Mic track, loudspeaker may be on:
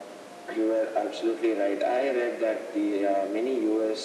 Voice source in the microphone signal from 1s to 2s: echo only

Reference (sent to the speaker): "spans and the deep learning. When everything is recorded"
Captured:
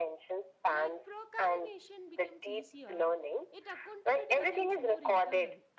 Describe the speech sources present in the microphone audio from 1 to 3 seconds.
both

